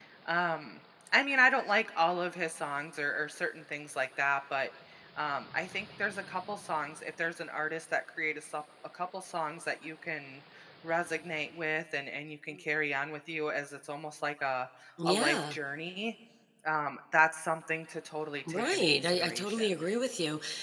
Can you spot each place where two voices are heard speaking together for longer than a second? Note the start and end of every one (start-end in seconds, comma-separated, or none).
18.5-19.7